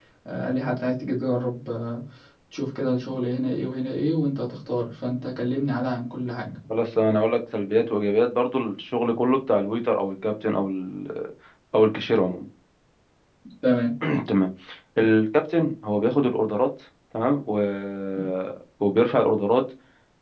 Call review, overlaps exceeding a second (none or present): none